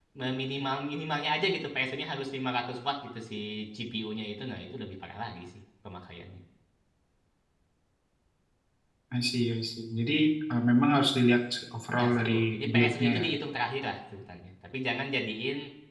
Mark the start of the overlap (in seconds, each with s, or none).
11.9 s